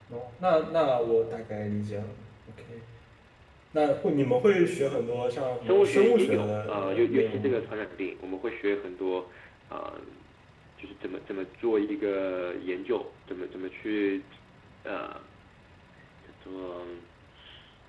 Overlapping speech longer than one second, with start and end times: 5.6-7.6

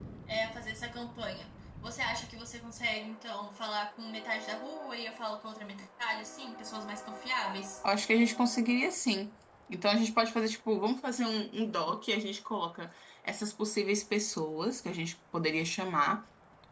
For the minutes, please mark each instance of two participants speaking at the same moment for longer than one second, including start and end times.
none

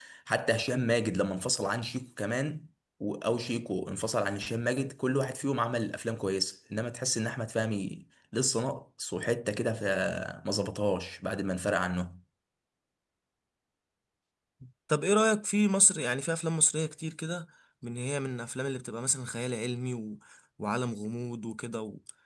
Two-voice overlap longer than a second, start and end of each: none

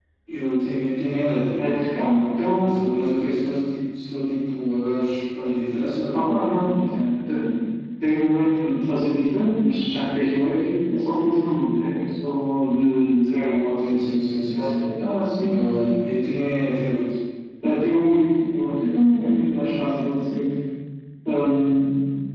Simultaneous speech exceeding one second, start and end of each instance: none

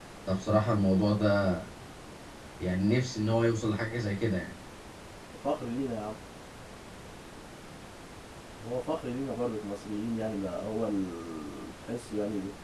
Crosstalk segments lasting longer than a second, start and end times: none

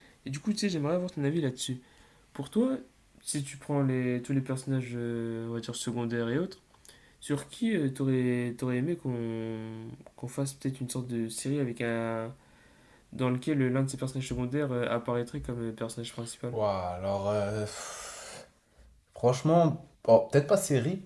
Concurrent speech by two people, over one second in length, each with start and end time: none

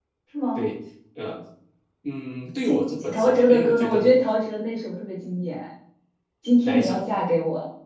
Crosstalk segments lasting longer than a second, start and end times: 2.6-4.1

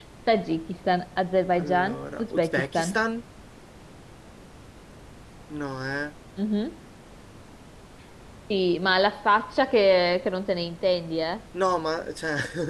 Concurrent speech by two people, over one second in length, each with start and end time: 1.6-3.0

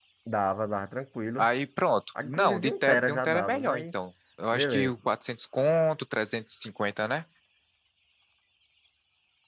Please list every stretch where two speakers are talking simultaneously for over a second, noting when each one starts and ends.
2.2-3.8

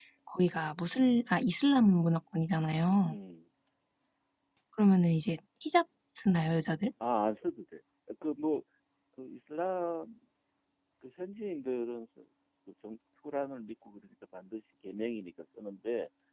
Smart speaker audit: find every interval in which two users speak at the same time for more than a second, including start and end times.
none

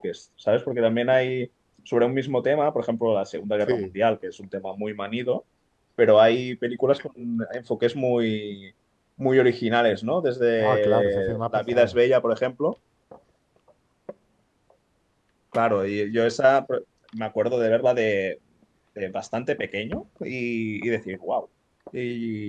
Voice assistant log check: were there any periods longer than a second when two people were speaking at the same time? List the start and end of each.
10.6-12.0

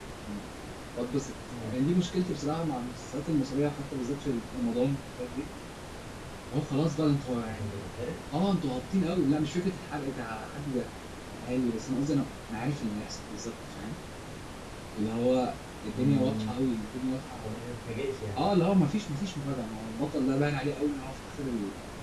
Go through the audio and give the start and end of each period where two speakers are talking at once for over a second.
none

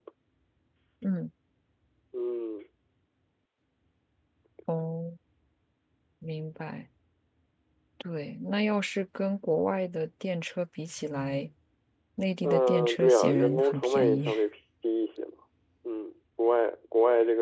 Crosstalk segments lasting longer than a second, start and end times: 12.4-14.3

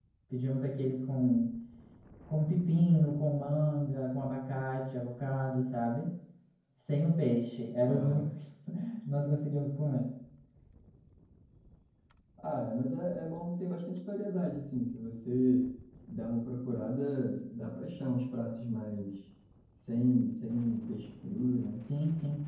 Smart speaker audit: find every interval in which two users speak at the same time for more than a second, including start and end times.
none

